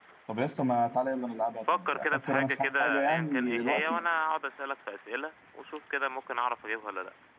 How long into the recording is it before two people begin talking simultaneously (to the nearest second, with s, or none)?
2 s